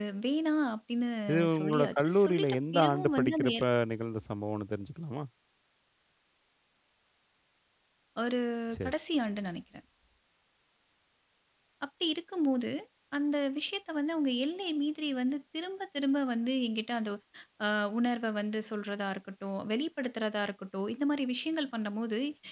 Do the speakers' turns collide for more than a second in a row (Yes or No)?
Yes